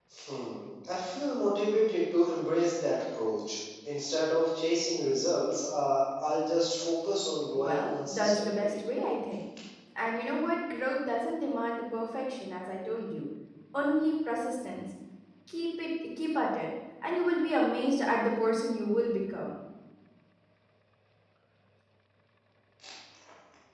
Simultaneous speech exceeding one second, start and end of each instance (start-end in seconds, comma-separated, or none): 7.5-8.8